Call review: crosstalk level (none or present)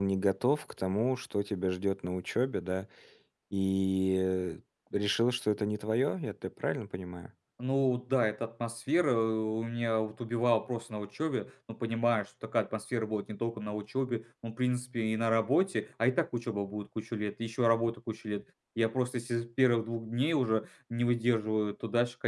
none